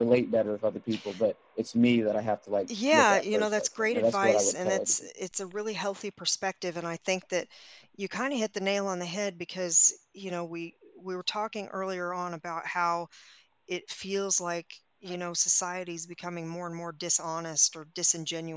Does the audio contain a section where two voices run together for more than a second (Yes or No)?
Yes